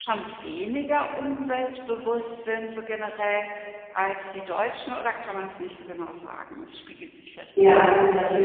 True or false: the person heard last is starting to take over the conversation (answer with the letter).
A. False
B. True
B